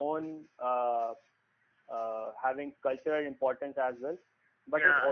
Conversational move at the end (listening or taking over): listening